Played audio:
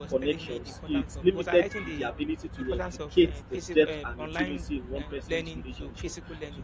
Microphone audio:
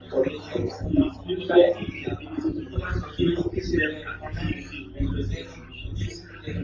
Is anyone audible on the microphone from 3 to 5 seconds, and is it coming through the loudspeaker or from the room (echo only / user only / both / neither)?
echo only